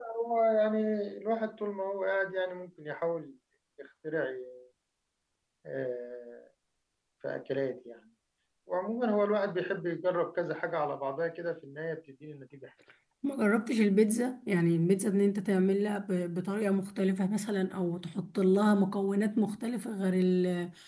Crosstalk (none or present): none